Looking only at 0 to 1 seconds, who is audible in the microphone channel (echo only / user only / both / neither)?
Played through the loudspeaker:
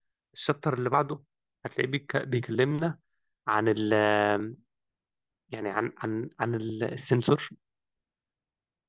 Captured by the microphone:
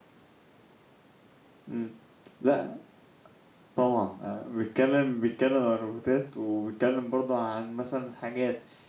neither